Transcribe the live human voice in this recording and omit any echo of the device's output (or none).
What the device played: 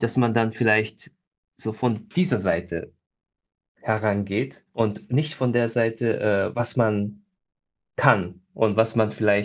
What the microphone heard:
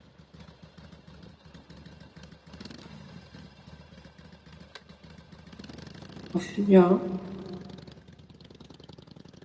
auf ja,